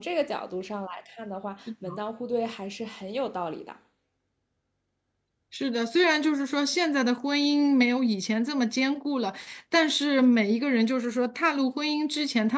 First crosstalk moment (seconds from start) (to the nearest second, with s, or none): none